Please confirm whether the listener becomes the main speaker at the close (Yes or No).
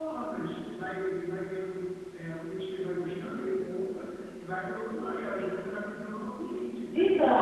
Yes